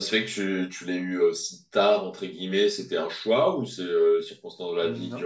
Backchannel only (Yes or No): Yes